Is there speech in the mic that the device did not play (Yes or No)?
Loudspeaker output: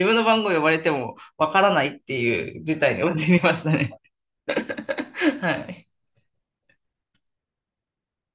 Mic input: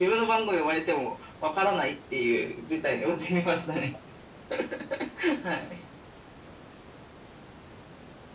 No